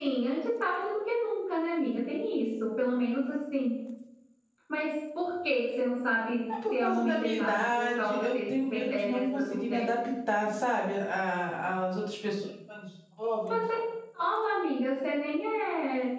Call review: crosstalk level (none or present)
present